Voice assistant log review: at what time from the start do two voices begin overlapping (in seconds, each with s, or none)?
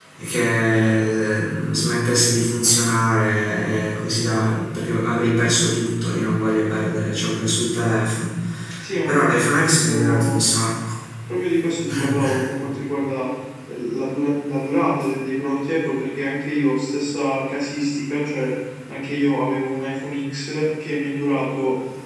9.1 s